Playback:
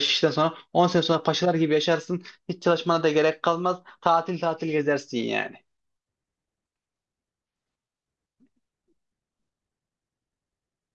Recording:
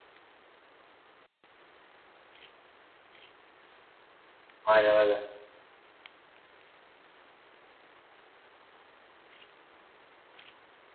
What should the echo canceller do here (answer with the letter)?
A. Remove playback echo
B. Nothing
B